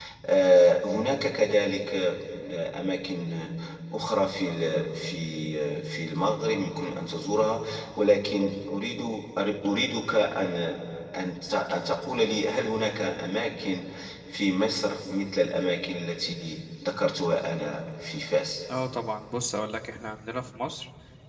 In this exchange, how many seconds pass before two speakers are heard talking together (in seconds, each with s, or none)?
none